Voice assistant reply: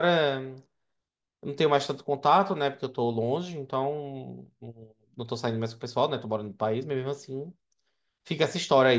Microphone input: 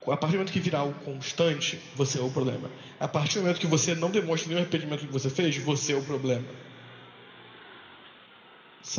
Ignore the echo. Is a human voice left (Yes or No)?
Yes